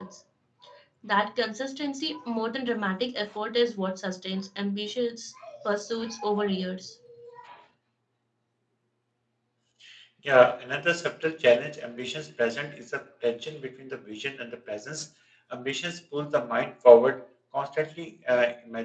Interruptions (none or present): none